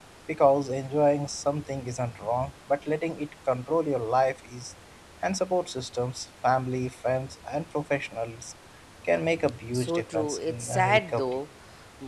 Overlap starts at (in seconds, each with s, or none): 9.7 s